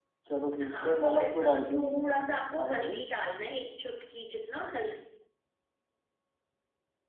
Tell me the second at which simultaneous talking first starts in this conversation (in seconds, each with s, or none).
0.6 s